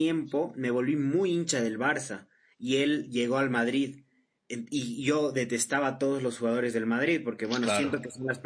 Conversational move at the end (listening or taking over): listening